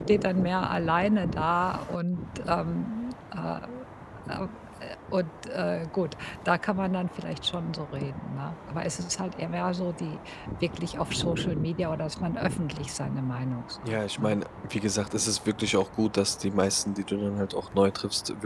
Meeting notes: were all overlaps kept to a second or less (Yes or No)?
Yes